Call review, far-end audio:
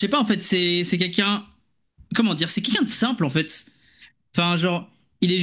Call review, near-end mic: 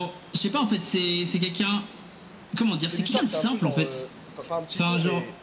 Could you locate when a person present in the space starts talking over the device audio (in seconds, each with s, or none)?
2.9 s